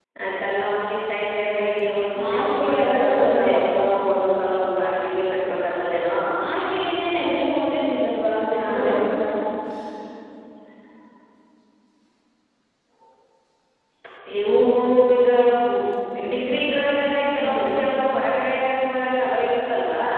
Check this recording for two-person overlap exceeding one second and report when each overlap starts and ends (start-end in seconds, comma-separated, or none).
2.2-3.9